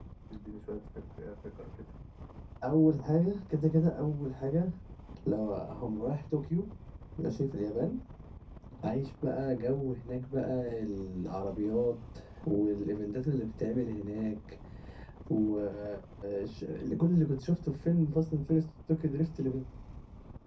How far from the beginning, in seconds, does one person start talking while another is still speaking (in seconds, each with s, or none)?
none